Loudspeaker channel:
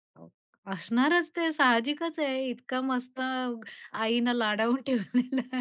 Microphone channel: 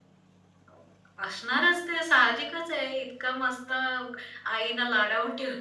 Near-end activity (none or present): none